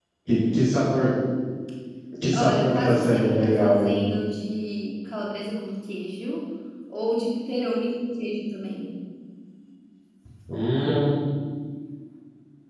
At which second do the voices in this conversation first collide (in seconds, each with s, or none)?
2.3 s